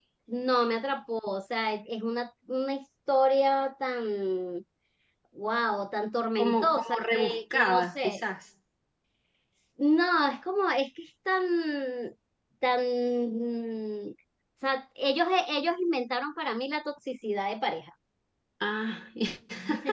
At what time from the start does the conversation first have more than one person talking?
6 s

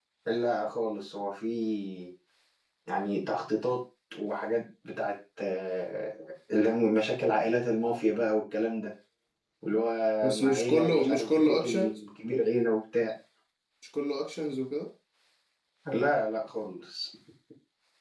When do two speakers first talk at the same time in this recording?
10 s

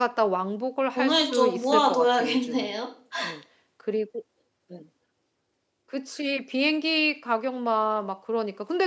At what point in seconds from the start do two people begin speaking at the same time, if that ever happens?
1 s

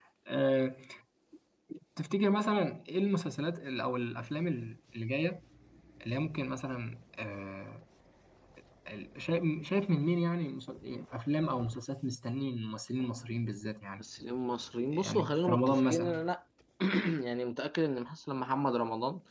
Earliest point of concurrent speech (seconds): 15 s

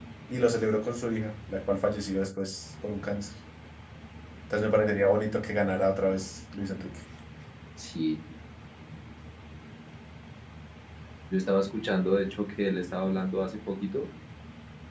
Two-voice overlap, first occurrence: none

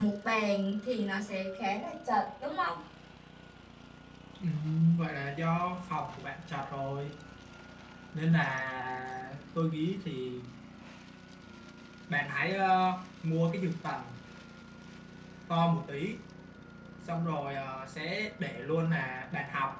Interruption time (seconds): none

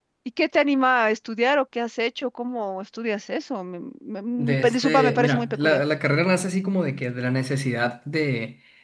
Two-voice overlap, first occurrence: 4 s

